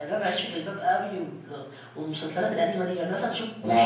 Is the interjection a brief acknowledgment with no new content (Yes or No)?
No